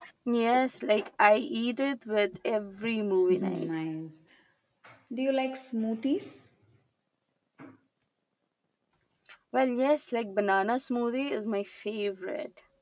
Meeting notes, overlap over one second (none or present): none